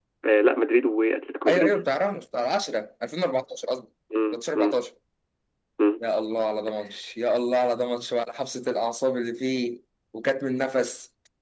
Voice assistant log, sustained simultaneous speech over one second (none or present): none